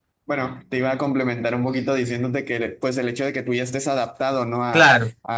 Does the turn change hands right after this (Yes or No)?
No